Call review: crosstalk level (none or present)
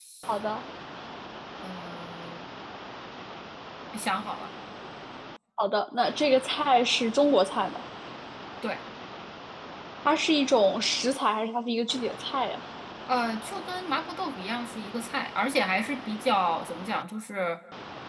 none